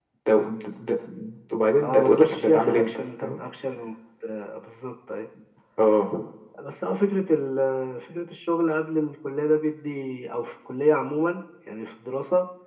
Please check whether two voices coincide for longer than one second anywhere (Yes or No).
Yes